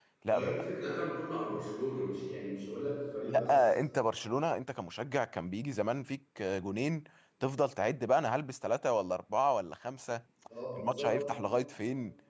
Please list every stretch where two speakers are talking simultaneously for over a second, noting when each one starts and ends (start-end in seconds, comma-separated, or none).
none